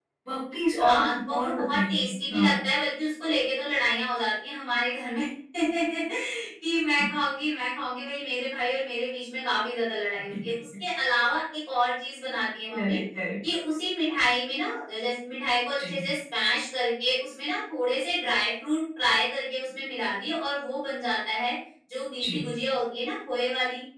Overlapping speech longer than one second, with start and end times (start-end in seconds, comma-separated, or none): 0.8-2.5